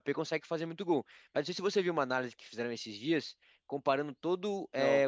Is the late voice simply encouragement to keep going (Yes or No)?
Yes